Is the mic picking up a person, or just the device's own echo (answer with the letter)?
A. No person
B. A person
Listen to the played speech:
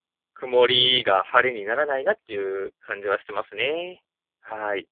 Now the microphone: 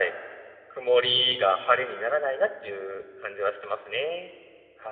A